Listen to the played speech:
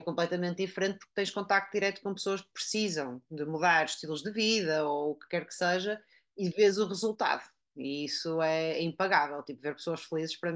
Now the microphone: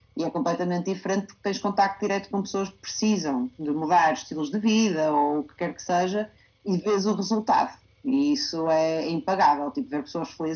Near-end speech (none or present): none